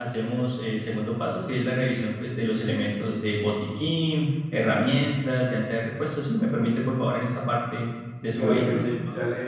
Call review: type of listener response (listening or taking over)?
taking over